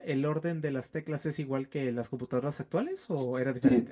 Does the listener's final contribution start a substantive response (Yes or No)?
Yes